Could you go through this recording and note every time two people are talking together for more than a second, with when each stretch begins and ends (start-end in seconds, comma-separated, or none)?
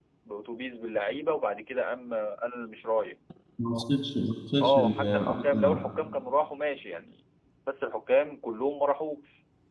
4.6-5.8